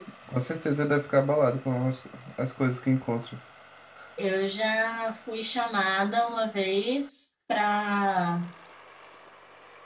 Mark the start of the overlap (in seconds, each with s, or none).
none